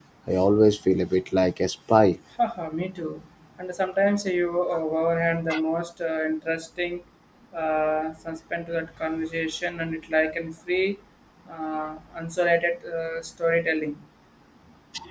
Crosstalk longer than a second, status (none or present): none